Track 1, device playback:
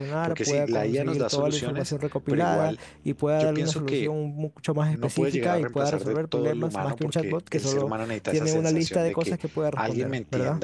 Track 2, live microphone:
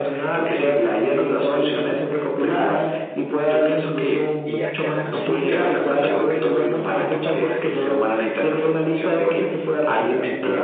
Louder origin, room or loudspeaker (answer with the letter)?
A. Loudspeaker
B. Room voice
A